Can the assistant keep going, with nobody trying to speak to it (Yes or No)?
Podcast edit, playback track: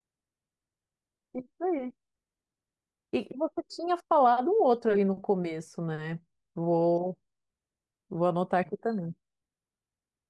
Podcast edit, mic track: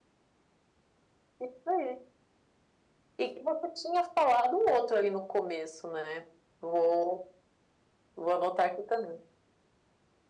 Yes